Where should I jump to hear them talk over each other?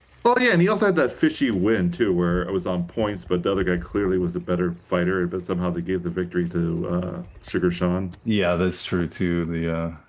none

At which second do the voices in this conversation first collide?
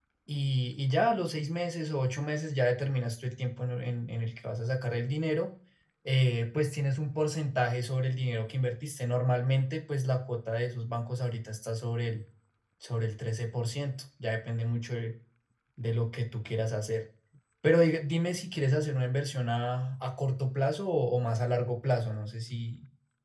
none

